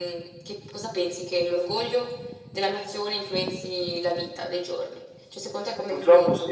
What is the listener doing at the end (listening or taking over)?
taking over